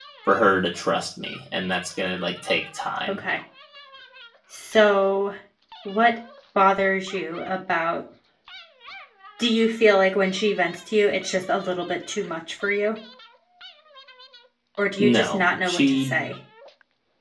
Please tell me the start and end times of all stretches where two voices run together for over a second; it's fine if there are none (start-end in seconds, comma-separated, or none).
15.0-16.3